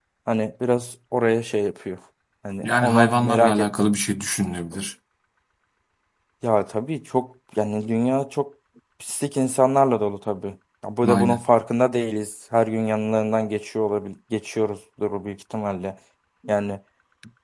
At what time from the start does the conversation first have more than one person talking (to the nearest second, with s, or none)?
3 s